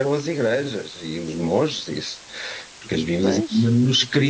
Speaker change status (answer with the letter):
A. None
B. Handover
A